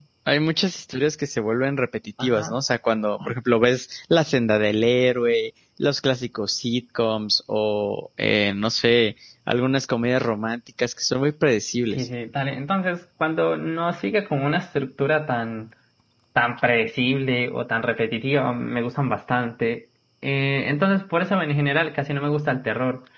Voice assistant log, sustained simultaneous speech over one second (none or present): none